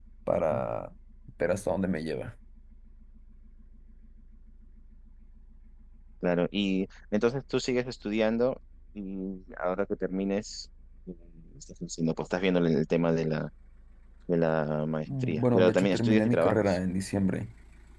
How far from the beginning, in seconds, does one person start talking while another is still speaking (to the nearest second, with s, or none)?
15 s